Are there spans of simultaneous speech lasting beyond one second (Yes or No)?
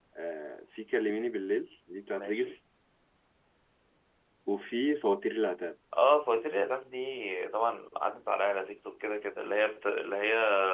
No